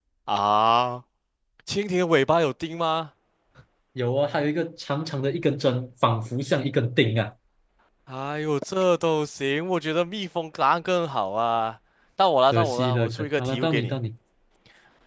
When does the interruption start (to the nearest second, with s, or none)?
13 s